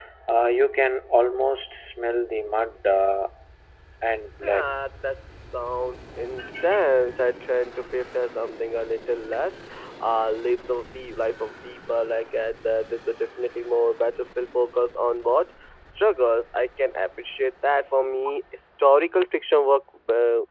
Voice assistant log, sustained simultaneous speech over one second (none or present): none